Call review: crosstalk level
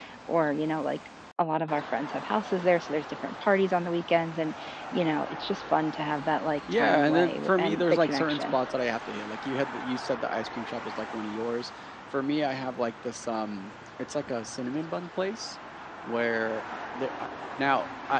present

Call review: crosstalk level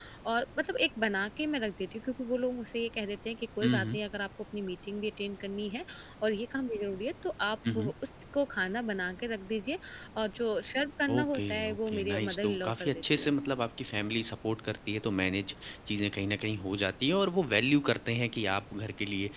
present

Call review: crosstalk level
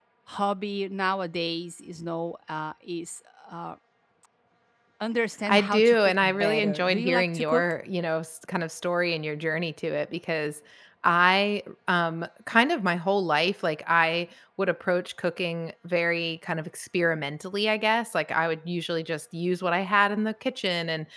present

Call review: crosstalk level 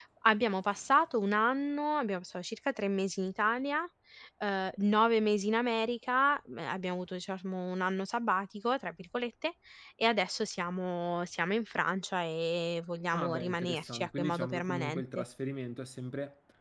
present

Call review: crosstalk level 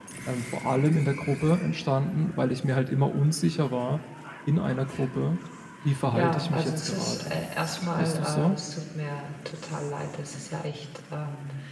present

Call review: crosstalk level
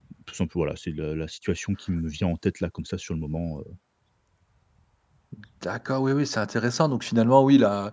none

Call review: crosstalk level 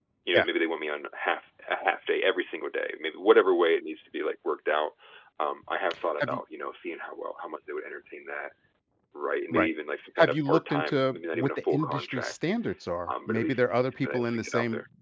present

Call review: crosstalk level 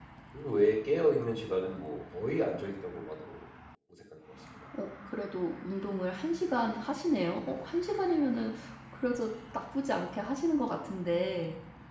none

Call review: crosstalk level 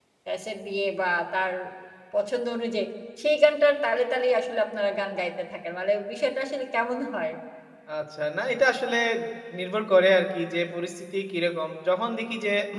none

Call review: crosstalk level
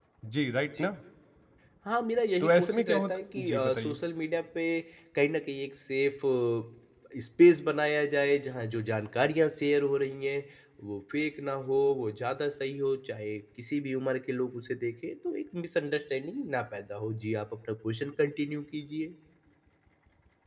present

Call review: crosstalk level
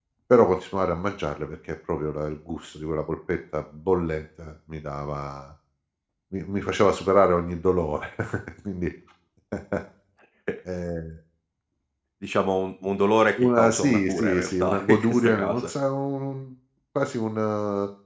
present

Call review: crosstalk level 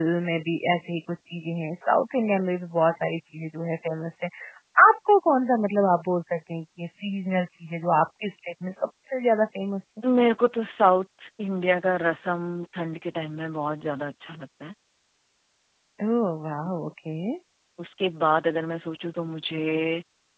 none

